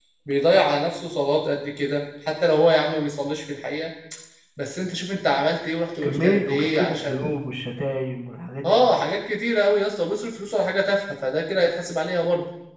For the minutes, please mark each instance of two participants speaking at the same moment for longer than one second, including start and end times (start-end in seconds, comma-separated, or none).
6.0-7.3